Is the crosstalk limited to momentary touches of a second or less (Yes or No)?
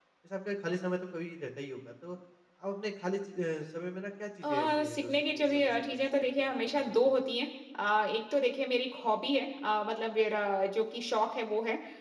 No